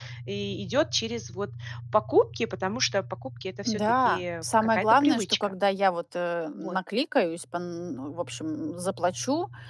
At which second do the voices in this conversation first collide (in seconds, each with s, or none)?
3.6 s